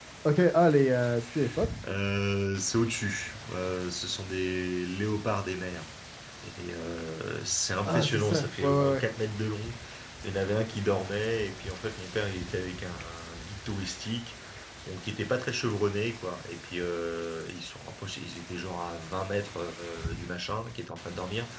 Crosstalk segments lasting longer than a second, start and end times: 7.9-9.1

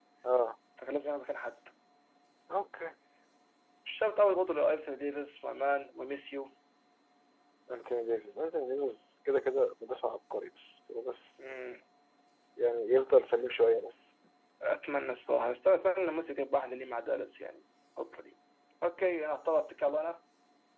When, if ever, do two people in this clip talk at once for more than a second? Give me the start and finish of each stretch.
none

